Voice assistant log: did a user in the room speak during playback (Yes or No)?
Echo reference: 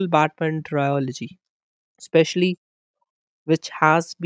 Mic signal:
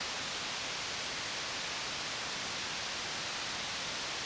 No